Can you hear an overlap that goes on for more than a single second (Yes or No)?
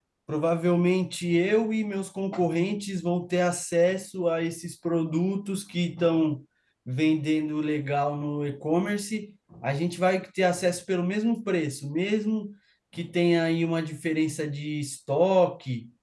No